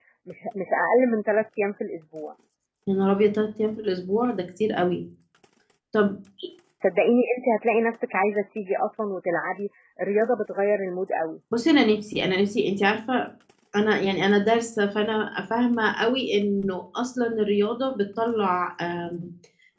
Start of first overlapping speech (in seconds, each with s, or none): none